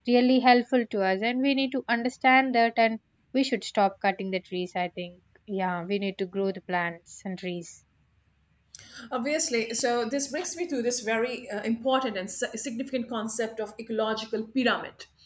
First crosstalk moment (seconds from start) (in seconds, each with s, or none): none